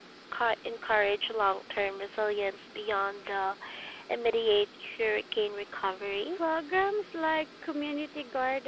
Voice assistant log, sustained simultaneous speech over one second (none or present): none